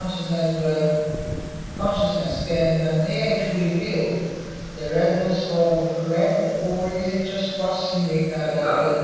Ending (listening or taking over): taking over